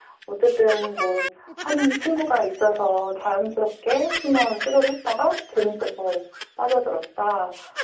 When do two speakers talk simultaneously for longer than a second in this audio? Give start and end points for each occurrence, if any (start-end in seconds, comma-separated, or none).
none